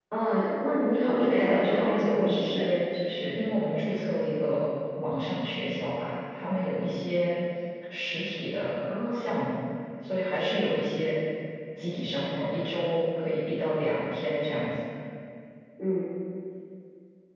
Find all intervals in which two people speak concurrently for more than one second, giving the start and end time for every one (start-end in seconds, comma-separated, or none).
1.2-2.7